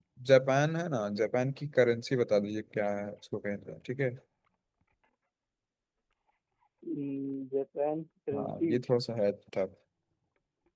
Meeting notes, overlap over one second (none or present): none